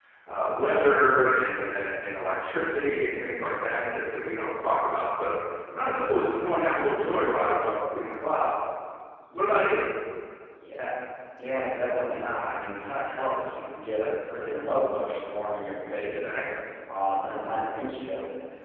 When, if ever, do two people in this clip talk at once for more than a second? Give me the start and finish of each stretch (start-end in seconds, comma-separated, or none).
none